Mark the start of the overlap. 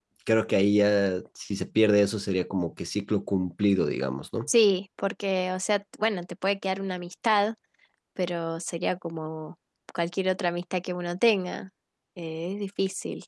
none

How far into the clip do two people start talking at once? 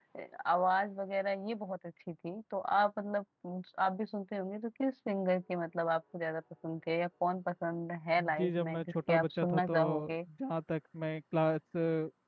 8.2 s

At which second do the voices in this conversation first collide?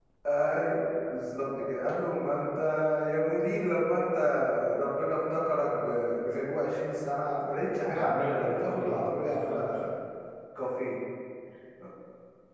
7.9 s

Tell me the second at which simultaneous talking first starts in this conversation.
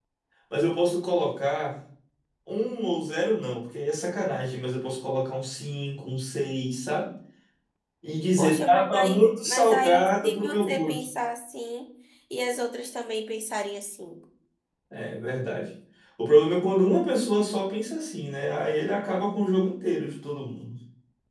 8.4 s

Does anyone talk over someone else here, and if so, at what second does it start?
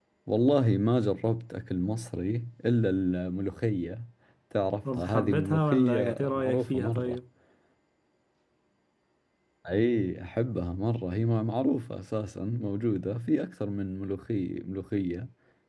4.8 s

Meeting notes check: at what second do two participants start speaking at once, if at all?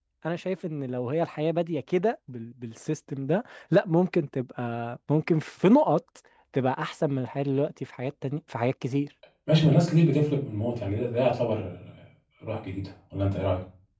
none

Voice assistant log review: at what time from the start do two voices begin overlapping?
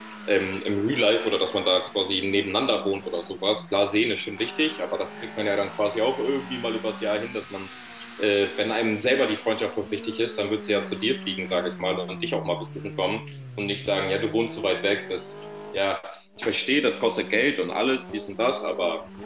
none

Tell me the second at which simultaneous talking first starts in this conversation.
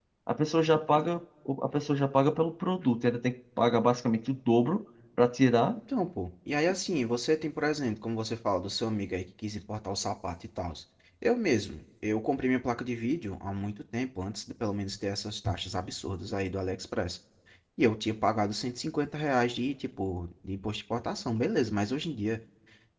none

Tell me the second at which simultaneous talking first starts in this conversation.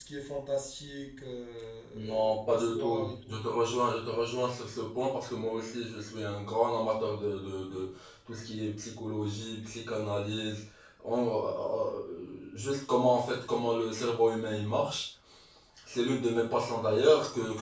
1.9 s

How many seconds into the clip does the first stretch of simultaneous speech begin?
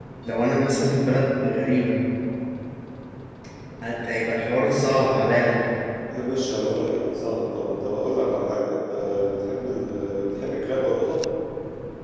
none

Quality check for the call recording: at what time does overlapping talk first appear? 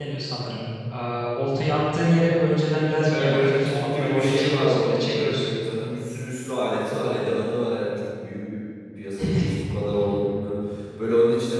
3.1 s

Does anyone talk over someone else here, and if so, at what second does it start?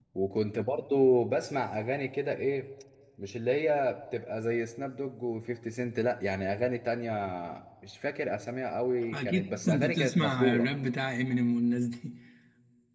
9.0 s

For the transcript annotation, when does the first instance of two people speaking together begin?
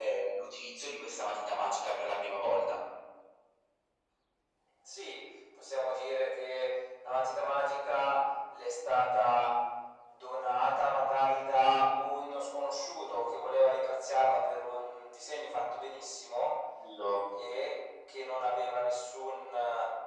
none

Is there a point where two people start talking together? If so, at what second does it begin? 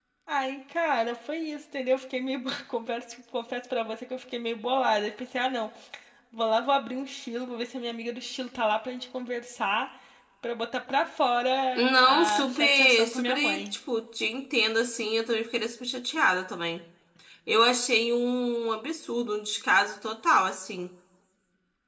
11.8 s

